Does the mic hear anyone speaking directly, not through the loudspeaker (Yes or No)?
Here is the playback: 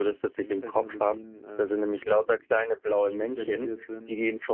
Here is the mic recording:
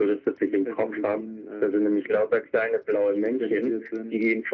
No